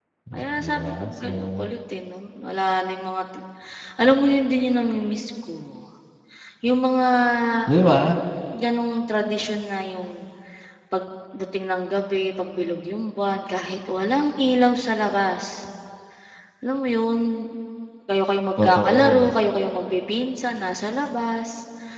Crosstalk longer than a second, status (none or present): present